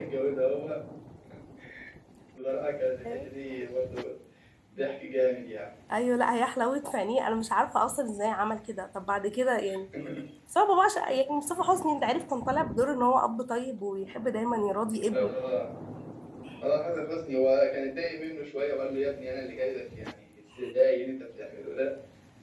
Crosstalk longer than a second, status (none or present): none